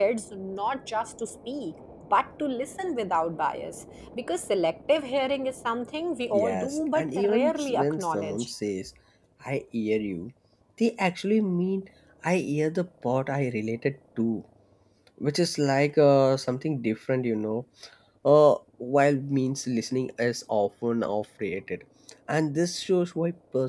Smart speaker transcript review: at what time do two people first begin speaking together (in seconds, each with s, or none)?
6.3 s